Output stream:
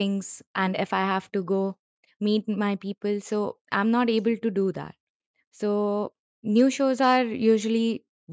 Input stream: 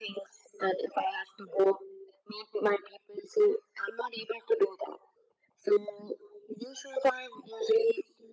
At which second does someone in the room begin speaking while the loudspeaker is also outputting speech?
none

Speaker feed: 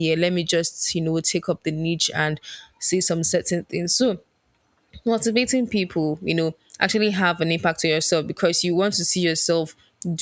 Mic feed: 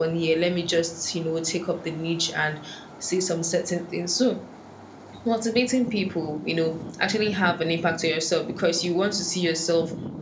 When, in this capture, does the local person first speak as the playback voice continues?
none

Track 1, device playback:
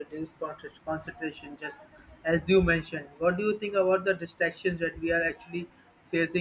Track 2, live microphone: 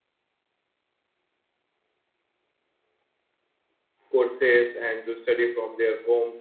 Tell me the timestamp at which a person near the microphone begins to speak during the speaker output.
4 s

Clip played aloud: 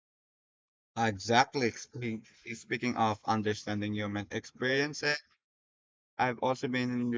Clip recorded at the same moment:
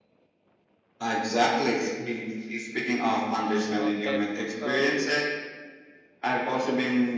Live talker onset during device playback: 4 s

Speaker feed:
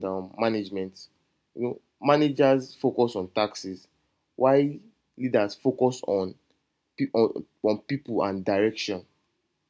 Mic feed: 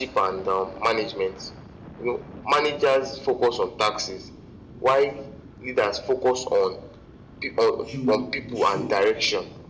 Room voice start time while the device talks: 8 s

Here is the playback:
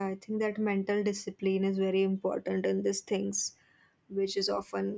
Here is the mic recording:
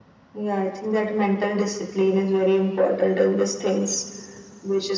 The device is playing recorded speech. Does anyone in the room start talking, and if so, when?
none

